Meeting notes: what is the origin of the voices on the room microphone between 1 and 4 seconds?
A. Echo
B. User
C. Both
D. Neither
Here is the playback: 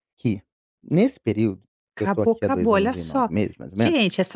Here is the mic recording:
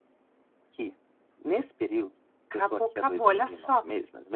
A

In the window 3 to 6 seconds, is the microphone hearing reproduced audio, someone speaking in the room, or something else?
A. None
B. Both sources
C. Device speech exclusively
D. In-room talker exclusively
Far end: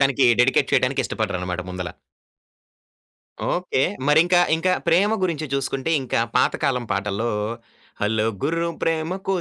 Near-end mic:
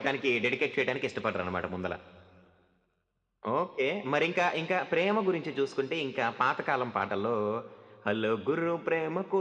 C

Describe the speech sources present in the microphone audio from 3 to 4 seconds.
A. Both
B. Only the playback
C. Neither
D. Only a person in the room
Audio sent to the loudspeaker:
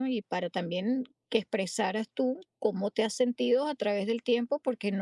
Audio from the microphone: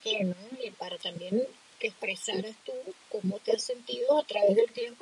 B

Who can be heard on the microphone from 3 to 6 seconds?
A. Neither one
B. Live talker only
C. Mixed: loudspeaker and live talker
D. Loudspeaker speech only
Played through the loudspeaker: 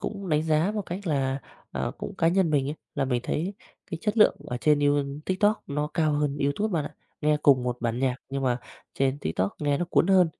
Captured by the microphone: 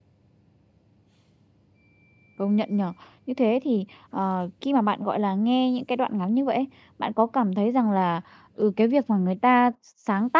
B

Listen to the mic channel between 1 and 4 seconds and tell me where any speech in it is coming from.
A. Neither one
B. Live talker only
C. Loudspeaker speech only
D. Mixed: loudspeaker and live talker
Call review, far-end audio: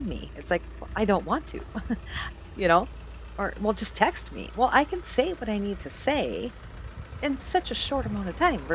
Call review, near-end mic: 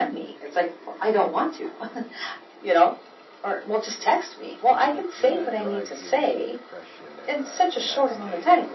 C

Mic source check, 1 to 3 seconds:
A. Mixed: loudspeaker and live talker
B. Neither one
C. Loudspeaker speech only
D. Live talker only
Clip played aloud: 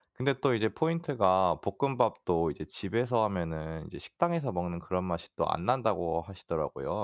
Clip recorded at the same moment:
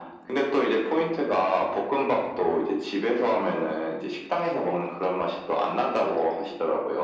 C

